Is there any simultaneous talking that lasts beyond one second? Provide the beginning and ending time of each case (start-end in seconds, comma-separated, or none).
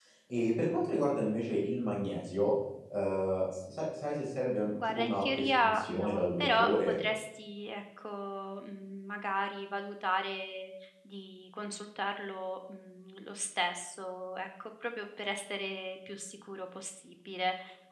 4.9-7.0